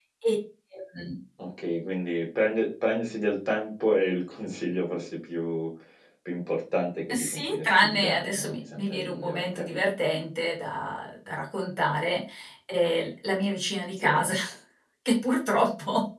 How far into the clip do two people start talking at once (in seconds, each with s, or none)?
7.1 s